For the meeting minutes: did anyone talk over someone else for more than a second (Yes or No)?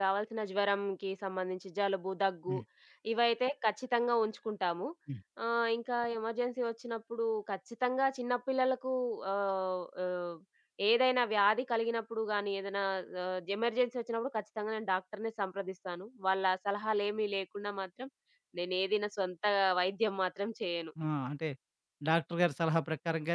No